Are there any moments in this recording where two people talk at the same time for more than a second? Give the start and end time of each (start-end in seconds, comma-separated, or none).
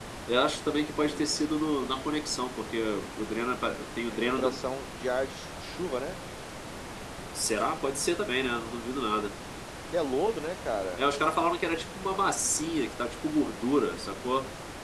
none